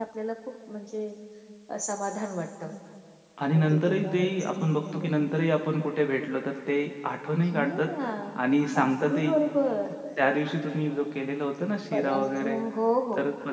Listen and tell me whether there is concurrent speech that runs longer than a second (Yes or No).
Yes